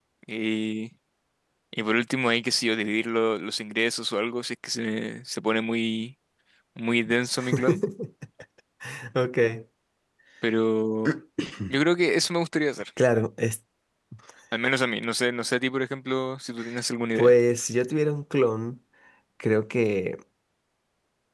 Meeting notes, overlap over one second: none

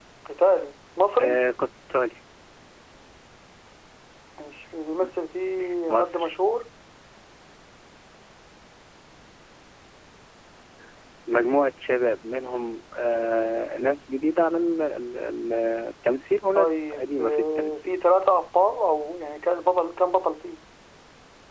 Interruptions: present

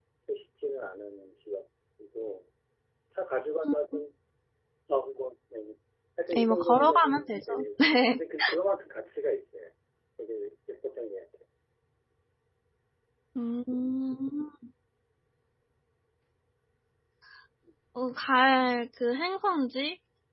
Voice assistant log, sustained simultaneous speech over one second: present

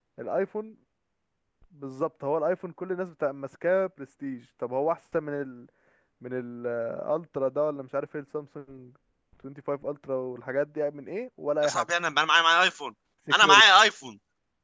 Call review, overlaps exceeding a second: none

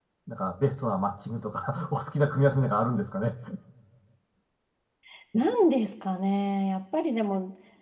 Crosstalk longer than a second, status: none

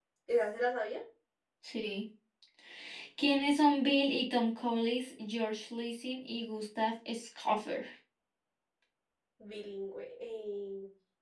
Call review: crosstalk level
none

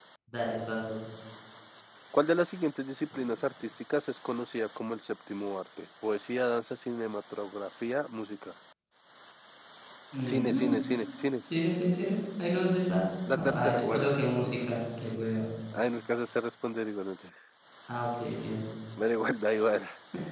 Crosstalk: present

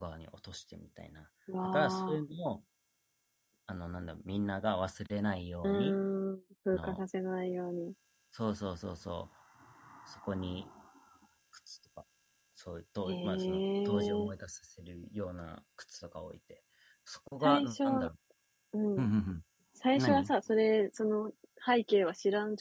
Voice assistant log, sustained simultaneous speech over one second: present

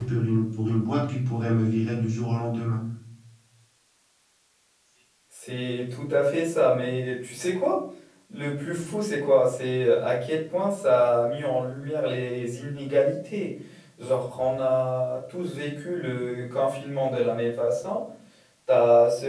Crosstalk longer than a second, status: none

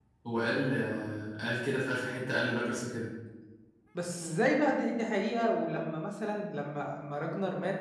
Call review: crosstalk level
none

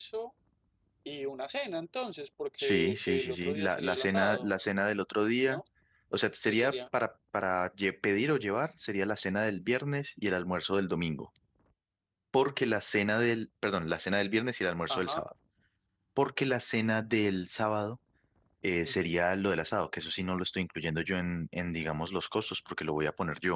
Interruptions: present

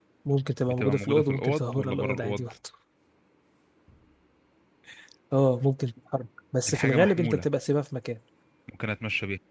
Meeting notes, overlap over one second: present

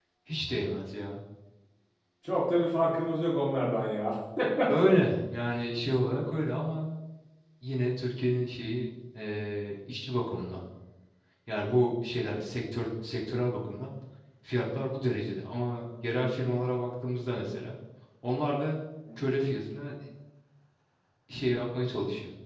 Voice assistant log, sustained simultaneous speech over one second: none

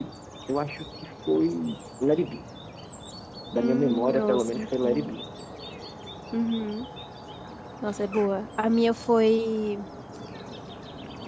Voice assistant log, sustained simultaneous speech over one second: present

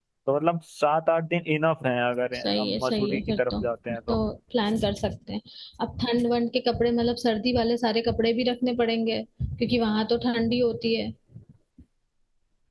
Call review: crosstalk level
present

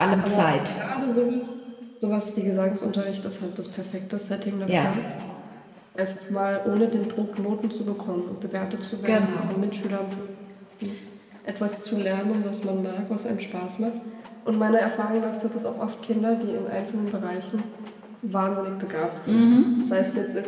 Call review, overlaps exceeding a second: none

